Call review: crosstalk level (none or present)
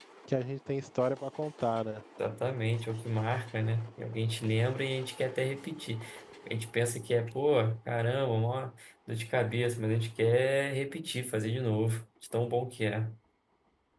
none